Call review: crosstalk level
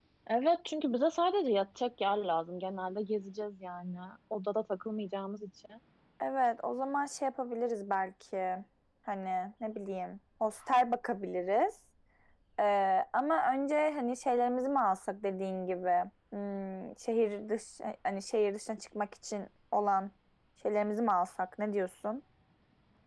none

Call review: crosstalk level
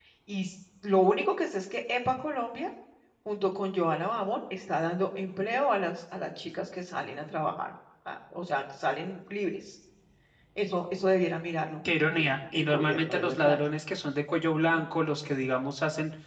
present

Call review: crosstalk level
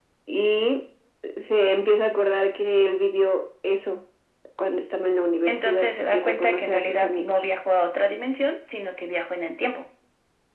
present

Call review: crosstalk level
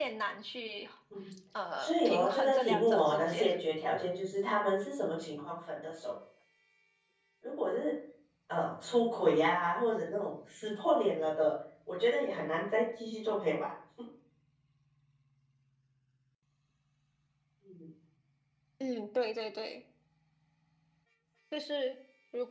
present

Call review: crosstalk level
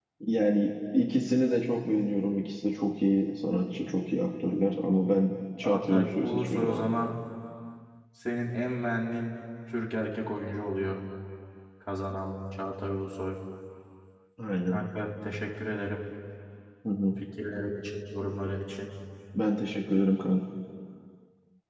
present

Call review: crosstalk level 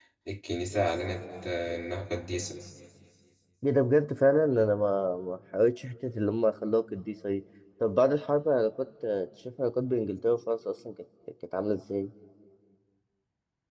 none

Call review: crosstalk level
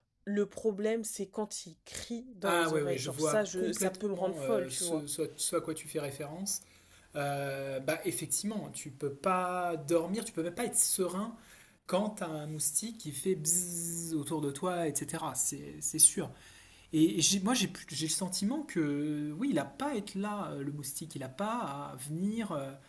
present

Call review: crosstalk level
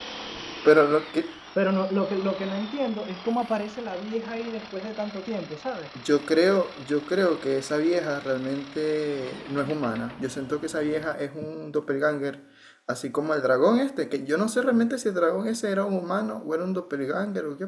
none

